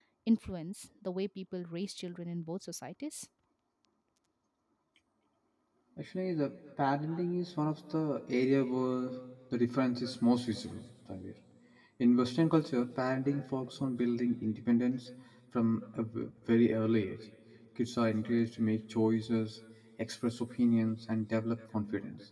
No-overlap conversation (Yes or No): Yes